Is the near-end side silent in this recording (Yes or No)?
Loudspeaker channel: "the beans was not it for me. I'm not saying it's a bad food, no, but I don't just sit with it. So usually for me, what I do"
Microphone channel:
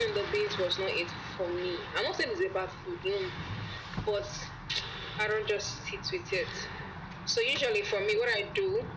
Yes